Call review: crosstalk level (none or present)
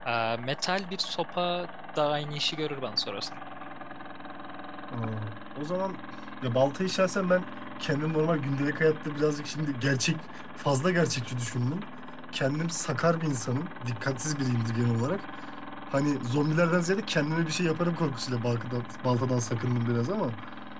none